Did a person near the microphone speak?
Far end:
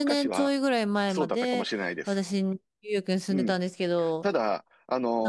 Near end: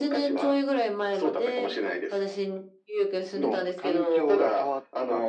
Yes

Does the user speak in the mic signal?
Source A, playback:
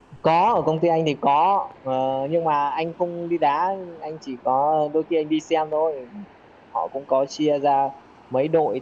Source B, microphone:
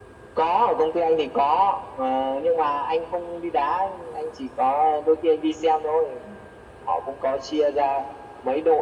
No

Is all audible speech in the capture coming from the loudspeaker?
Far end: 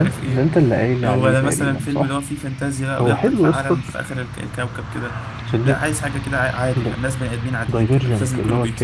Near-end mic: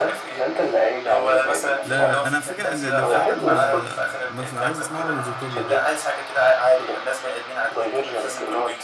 No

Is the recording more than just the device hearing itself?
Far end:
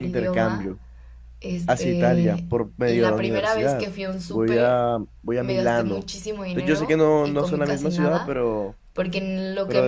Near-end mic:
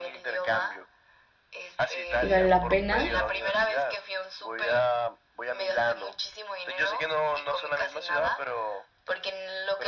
Yes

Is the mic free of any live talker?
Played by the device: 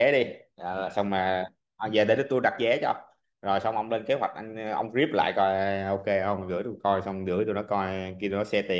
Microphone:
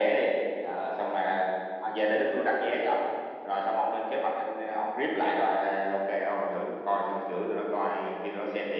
Yes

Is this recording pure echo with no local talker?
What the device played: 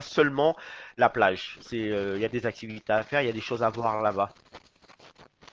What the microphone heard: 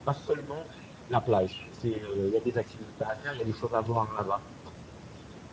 Yes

